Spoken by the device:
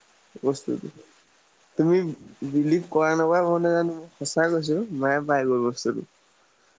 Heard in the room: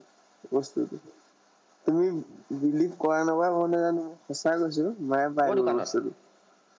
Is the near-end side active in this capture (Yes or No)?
Yes